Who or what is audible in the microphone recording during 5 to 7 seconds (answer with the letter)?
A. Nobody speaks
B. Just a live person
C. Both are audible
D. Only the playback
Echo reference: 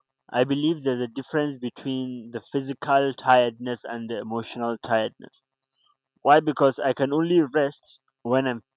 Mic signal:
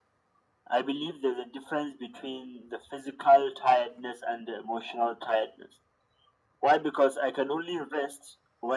D